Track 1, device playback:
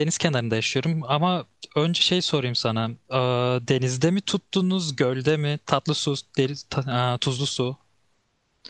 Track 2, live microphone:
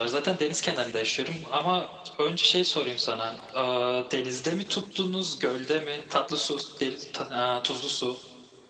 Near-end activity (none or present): none